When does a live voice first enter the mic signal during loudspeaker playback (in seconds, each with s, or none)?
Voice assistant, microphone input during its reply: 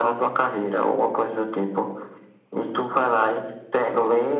none